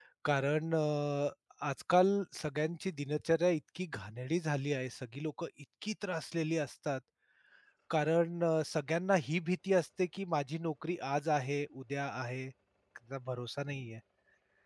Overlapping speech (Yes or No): No